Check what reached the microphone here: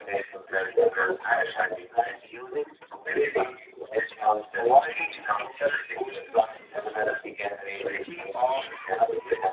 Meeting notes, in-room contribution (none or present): none